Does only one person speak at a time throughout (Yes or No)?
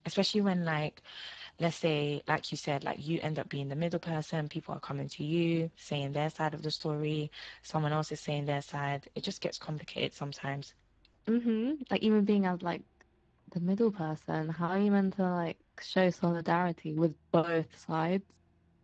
Yes